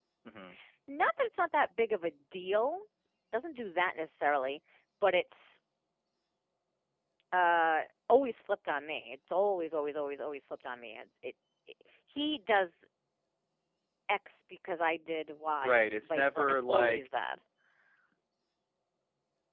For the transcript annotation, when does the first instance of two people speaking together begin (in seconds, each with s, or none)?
15.6 s